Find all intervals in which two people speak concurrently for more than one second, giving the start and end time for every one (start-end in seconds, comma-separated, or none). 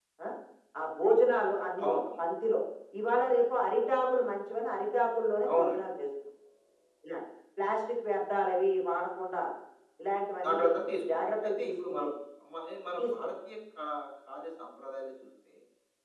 10.4-12.0